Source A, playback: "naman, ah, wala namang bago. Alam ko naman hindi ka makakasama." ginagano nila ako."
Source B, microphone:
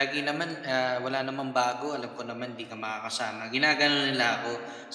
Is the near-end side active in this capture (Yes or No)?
No